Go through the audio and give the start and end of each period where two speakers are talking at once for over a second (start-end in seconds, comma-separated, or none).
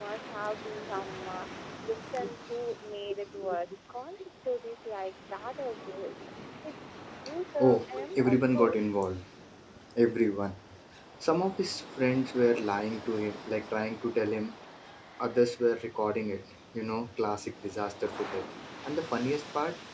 7.6-8.9